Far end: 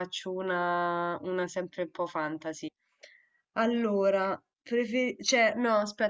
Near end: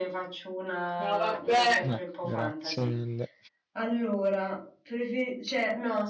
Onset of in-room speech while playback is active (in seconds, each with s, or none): 1.0 s